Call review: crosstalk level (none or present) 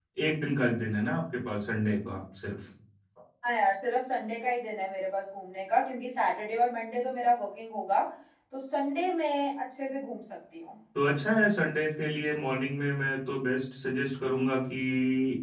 none